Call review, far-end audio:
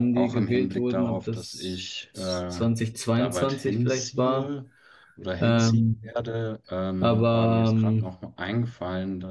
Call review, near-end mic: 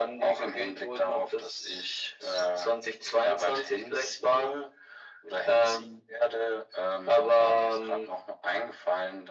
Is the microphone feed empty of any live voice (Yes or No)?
Yes